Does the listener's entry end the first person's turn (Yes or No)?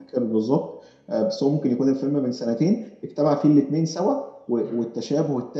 No